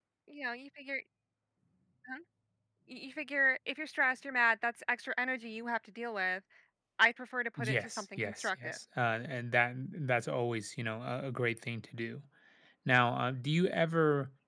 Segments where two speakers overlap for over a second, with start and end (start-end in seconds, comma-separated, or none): 7.6-8.8